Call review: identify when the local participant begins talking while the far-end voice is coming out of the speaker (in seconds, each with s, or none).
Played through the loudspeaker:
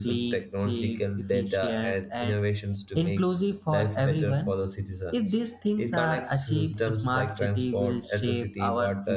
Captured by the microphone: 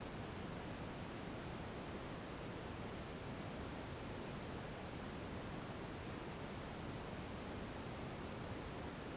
none